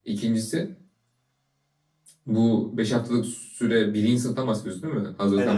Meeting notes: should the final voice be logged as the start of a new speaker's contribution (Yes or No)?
Yes